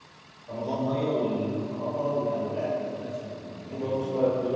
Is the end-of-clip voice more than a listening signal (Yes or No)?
Yes